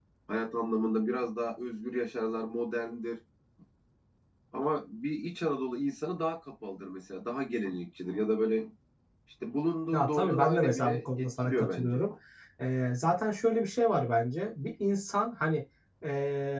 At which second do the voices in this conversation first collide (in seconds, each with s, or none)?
9.9 s